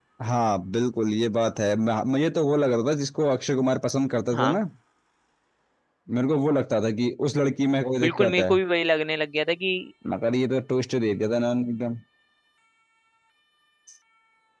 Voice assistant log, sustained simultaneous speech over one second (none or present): none